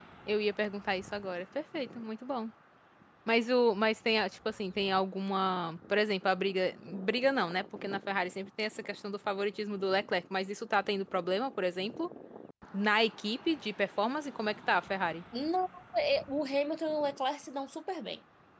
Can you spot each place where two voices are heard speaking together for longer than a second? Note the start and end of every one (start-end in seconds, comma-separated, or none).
none